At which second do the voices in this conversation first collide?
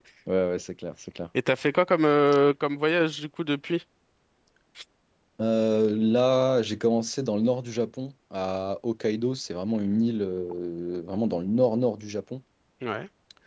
none

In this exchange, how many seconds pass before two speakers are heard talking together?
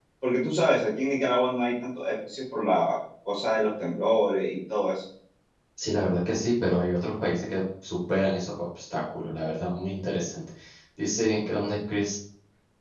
none

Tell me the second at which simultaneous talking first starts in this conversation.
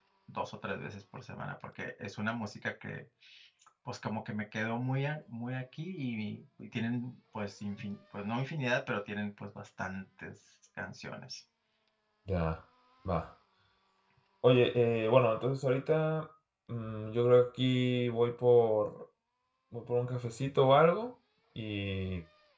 none

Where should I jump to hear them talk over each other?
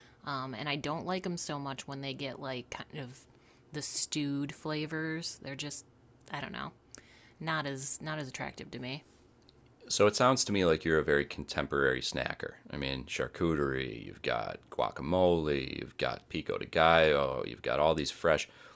none

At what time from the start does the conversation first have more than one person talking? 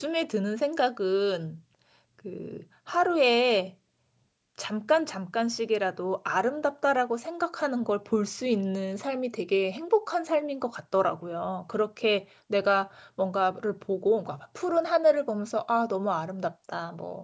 none

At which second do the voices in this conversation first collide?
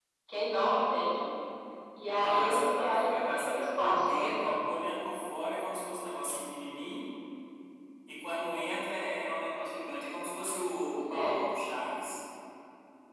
2.1 s

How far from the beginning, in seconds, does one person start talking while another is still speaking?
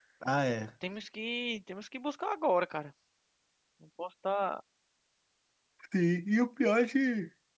none

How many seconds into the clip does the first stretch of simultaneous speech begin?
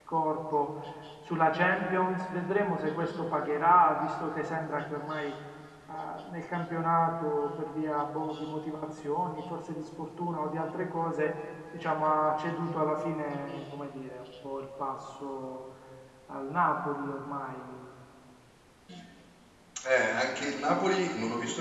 none

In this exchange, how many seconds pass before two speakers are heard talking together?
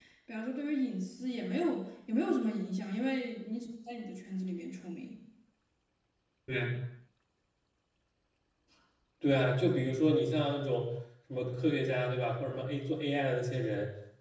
none

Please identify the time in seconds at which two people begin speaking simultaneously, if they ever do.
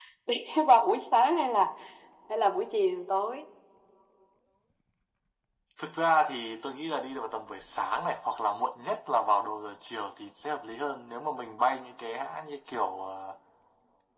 none

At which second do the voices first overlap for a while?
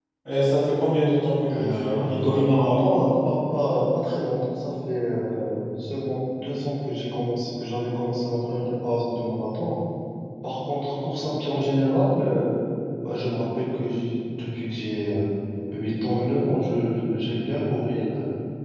1.5 s

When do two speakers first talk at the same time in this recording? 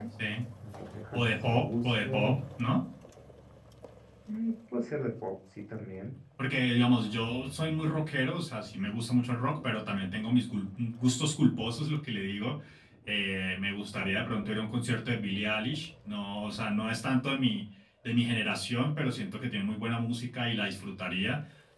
1.1 s

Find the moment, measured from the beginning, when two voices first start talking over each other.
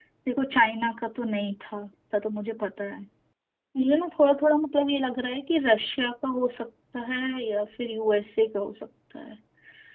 none

